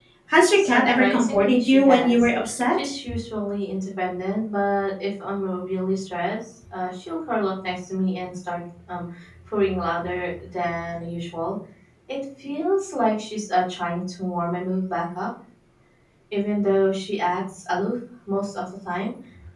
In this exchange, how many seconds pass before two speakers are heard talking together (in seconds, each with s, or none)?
0.5 s